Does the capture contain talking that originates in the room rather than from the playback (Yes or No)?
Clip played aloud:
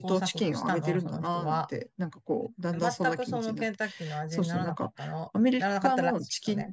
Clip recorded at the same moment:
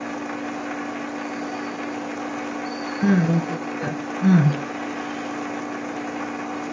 Yes